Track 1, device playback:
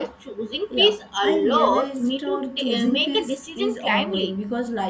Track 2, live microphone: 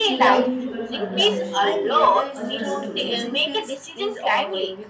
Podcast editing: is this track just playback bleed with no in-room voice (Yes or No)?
No